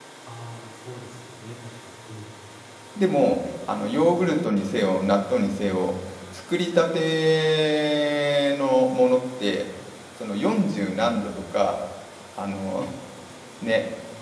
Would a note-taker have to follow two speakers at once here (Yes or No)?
No